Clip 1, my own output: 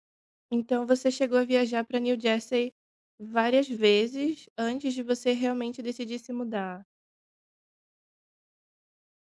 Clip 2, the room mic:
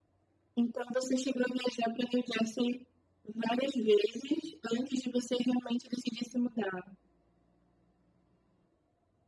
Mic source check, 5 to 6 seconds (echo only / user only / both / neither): echo only